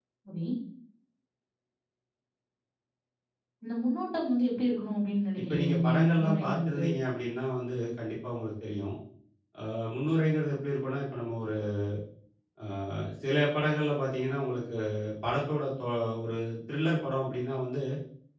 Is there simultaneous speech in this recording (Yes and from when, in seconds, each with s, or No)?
Yes, from 5.5 s